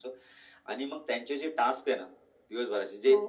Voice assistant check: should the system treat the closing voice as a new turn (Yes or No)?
No